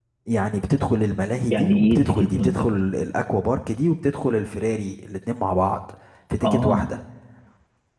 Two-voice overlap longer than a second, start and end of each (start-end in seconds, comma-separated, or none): 1.5-2.8